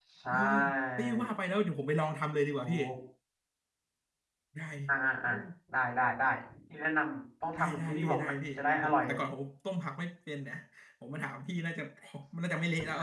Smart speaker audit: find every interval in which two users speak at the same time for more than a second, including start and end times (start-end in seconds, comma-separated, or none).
7.6-9.1